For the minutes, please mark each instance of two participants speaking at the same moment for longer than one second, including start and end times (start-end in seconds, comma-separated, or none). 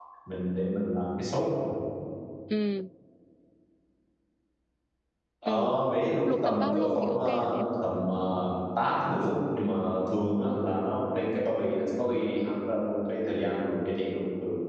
6.3-7.6